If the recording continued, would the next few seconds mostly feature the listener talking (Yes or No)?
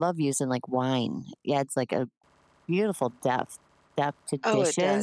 Yes